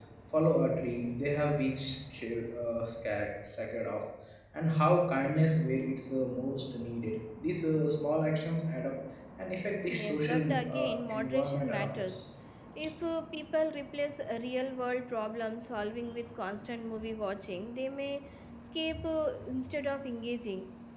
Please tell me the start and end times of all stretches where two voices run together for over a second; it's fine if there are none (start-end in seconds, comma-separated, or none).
9.9-12.2